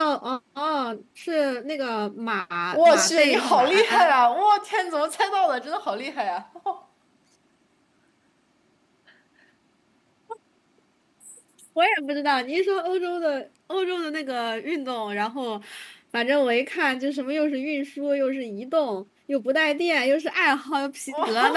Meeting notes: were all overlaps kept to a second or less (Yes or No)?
No